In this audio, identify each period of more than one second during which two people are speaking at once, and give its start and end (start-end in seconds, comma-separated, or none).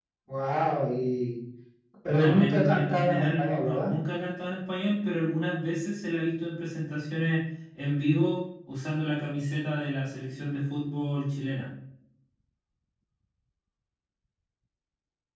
2.1-3.9